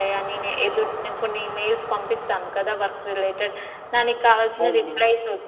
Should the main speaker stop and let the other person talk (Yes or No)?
No